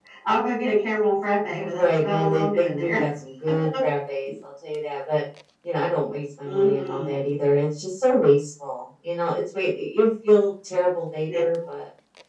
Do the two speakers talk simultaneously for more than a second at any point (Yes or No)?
Yes